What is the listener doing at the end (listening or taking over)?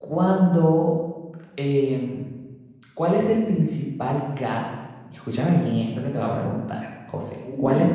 listening